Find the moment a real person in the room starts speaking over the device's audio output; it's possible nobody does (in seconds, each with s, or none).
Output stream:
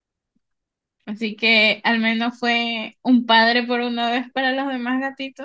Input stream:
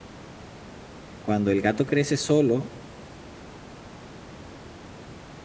1.2 s